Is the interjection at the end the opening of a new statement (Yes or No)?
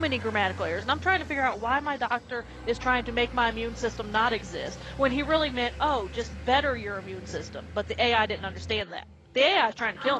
Yes